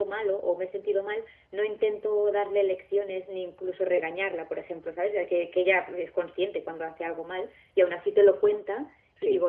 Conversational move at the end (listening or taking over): listening